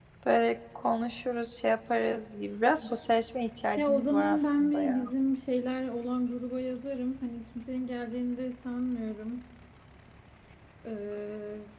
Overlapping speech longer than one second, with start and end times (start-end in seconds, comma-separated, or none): 3.8-5.0